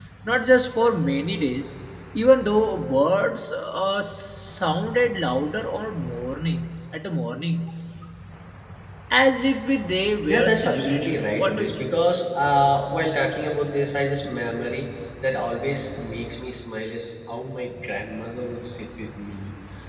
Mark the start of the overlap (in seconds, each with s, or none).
10.3 s